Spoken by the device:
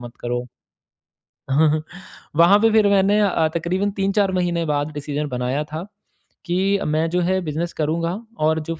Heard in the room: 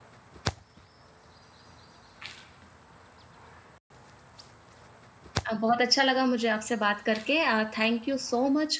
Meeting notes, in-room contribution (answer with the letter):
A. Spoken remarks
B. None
A